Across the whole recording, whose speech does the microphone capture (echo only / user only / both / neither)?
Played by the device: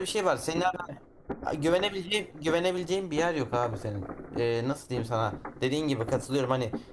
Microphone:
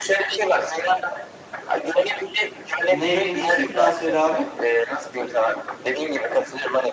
both